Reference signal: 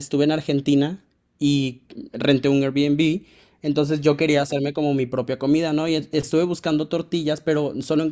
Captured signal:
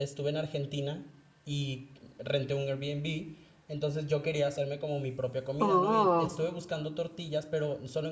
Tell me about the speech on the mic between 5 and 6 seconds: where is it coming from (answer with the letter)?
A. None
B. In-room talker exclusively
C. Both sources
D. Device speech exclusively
C